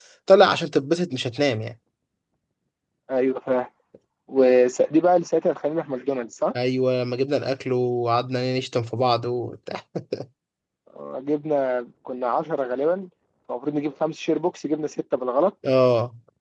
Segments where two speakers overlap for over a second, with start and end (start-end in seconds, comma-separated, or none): none